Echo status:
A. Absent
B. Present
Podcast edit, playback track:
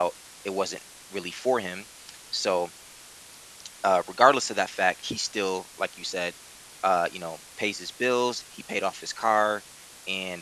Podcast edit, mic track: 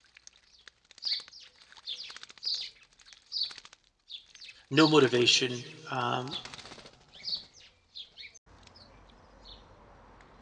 A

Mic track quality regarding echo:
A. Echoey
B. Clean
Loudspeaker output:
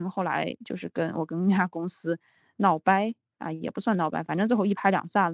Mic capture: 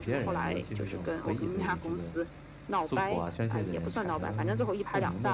A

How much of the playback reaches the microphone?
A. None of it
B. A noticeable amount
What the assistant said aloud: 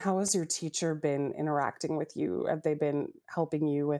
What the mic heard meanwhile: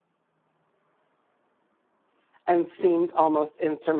A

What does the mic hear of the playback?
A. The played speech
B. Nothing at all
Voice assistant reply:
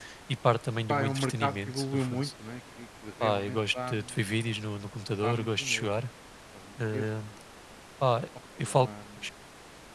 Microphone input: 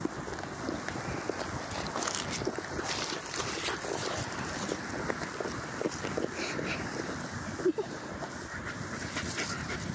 B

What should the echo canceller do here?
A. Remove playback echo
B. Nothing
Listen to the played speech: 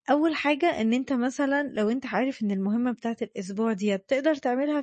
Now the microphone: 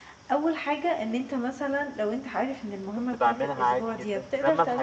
A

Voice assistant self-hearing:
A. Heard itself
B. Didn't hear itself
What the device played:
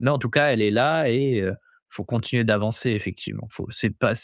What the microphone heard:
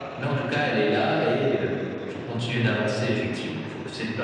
A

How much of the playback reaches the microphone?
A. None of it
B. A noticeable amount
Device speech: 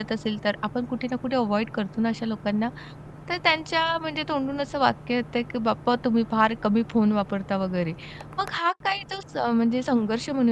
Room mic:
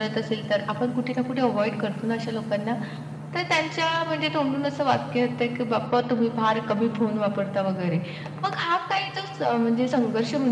B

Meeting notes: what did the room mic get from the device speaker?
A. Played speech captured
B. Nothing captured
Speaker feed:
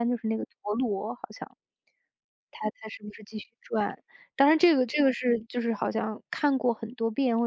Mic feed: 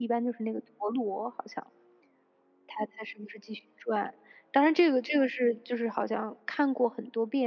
A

